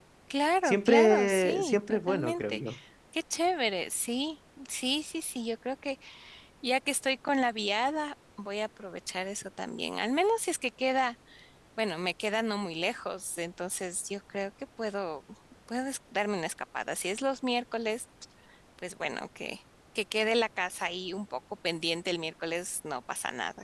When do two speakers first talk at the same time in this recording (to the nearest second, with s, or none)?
1 s